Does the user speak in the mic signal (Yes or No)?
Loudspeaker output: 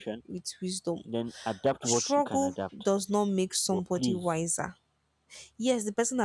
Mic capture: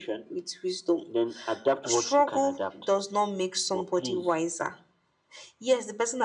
No